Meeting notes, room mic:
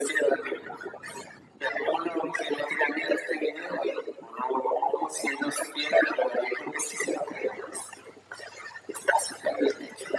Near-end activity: none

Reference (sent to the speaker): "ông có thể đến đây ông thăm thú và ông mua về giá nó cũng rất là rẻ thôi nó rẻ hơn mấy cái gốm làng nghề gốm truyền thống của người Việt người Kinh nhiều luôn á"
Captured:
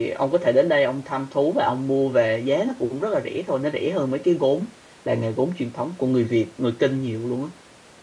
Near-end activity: none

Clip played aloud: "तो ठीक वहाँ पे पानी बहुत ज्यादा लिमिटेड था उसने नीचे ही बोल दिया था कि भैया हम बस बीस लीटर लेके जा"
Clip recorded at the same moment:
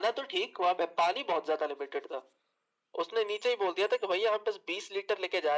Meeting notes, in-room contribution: none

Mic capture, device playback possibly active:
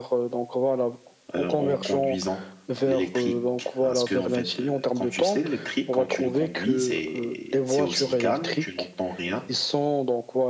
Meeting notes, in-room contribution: present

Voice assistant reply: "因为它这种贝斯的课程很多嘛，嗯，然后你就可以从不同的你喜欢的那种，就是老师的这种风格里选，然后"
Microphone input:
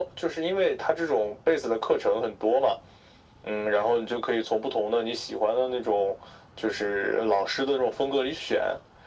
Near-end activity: none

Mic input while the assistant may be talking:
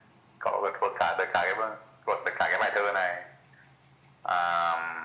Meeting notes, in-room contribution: none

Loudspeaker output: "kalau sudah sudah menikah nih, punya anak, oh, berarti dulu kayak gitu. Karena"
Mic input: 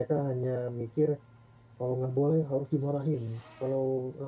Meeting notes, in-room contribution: present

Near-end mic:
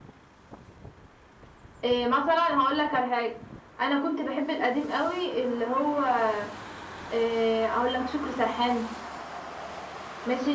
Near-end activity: none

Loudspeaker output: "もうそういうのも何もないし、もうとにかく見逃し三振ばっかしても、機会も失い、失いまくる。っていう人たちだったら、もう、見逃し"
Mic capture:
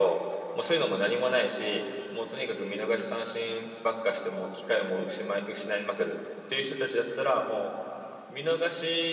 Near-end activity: none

